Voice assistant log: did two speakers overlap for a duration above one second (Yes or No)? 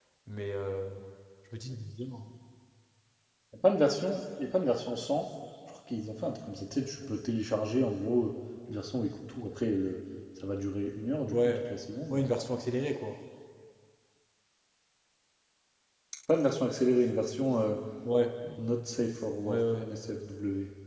No